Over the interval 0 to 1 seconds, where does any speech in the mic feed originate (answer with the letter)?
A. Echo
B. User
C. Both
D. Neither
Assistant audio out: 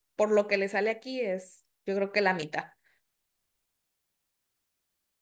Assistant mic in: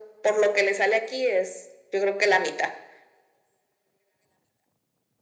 A